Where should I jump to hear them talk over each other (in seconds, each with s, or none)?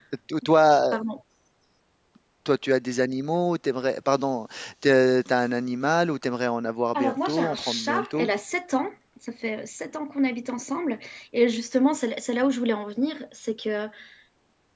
6.9 s